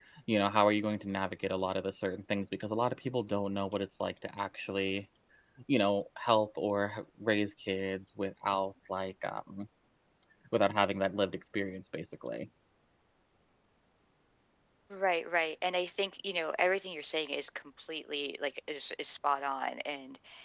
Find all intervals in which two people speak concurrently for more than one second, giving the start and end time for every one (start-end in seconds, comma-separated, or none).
none